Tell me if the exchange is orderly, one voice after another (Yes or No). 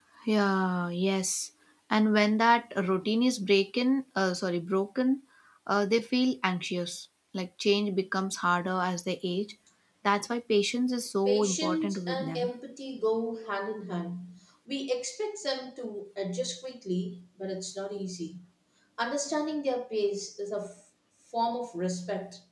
No